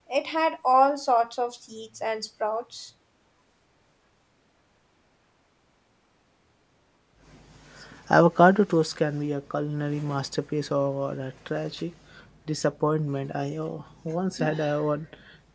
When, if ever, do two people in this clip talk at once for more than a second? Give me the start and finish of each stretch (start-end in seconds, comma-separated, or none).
none